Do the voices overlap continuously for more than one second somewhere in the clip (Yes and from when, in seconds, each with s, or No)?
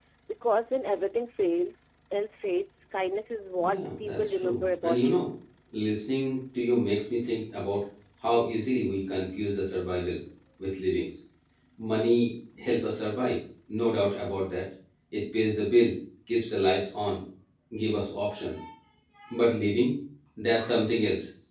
Yes, from 3.6 s